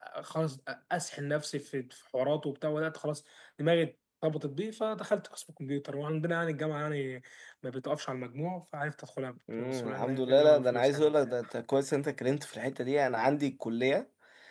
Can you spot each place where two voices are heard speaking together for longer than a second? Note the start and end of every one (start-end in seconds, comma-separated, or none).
9.6-11.1